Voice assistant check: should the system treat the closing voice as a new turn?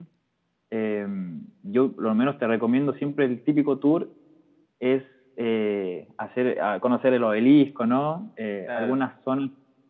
No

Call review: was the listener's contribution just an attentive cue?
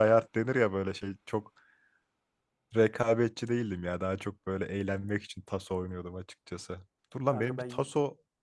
Yes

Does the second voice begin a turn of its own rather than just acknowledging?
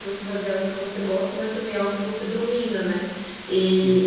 No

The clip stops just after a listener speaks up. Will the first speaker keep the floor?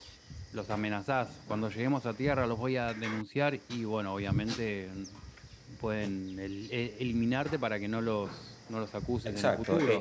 No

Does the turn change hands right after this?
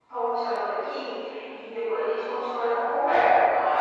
Yes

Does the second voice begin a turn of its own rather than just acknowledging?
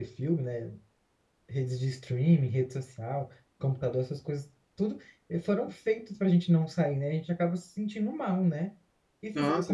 No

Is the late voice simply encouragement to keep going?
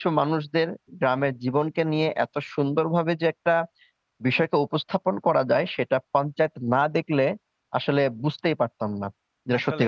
No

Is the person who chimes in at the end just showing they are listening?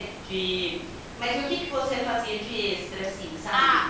No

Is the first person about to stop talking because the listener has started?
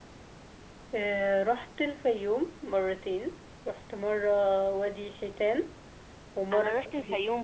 Yes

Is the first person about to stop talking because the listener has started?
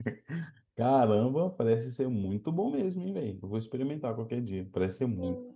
Yes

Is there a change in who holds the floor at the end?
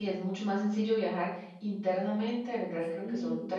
No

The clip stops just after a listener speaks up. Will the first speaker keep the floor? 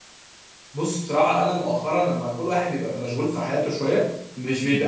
Yes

